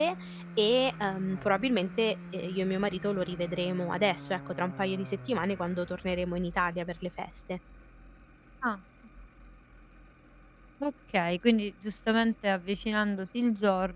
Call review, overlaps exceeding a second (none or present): none